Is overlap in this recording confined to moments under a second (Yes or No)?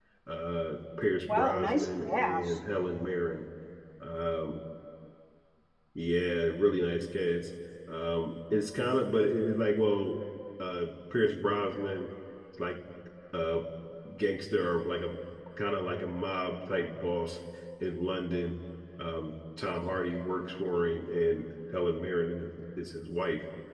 No